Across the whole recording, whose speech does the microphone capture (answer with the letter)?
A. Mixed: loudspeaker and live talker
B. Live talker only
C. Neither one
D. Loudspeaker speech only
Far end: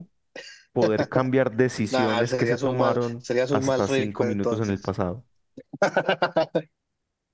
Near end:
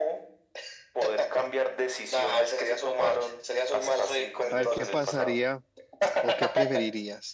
A